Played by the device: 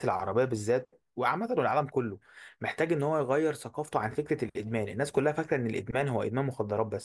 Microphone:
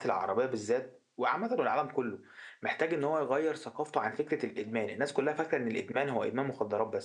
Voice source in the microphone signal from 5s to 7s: echo only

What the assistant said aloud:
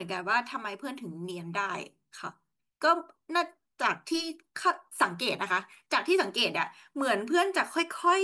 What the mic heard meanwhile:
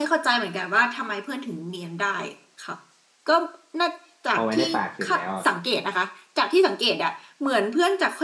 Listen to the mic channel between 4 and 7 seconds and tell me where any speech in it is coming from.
both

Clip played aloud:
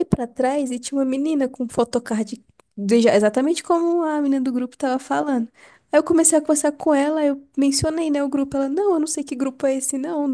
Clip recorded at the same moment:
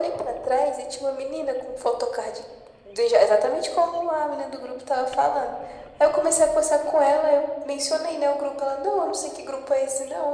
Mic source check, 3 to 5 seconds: echo only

